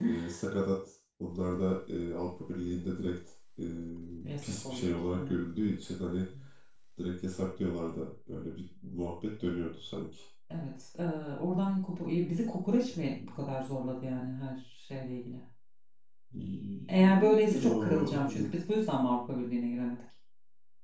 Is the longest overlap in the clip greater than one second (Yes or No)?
Yes